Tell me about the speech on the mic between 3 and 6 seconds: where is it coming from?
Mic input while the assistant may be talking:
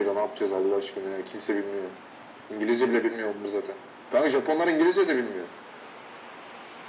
echo only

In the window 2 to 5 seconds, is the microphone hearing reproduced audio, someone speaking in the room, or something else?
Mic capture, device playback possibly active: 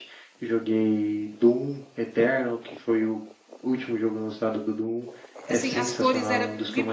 echo only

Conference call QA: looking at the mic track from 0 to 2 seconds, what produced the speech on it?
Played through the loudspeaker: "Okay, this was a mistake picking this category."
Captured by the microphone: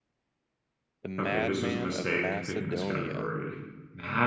both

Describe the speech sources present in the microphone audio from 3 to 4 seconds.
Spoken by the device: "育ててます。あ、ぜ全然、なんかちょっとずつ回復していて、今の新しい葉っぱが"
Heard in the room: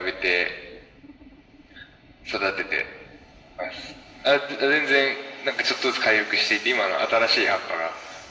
echo only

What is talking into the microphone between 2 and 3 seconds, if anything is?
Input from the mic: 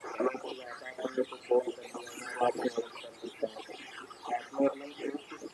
echo only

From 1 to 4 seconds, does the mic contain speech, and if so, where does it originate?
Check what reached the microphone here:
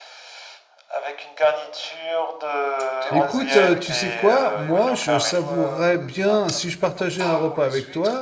both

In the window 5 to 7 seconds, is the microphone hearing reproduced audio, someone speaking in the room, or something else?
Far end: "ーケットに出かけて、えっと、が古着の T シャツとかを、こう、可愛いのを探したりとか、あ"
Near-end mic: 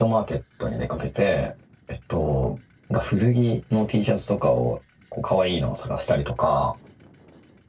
echo only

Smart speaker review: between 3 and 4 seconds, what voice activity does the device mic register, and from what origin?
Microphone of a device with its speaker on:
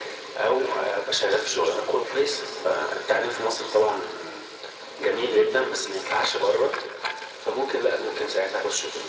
echo only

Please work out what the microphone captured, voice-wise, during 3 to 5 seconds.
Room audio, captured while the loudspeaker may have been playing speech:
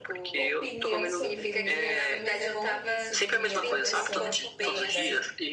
both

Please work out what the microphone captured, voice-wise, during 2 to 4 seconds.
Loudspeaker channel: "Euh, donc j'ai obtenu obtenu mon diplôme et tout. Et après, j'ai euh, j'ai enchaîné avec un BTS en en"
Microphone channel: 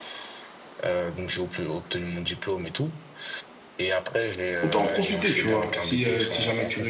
echo only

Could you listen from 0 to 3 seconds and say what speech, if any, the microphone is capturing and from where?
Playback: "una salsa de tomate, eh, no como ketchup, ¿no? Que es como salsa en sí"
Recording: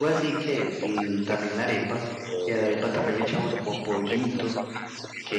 both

